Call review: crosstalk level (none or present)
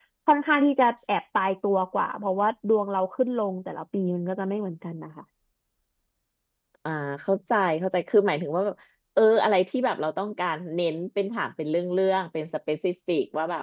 none